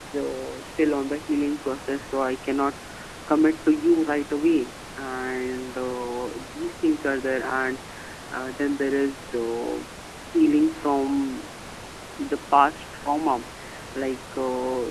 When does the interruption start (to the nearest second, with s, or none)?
none